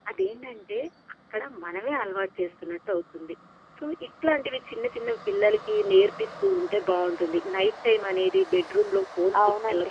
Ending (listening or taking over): listening